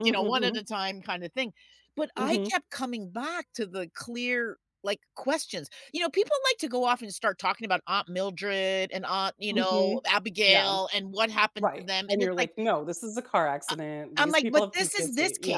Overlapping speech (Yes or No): Yes